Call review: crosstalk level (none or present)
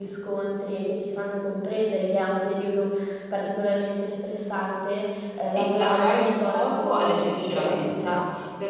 present